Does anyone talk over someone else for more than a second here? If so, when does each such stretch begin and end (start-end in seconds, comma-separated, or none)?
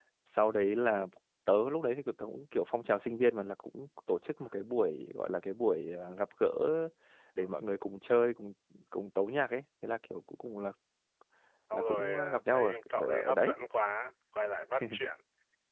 11.7-13.5